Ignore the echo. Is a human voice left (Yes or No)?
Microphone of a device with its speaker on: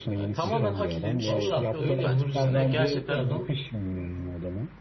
Yes